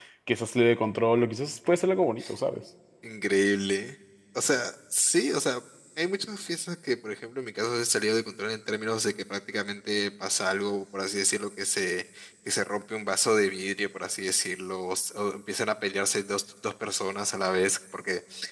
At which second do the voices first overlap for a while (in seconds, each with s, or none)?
none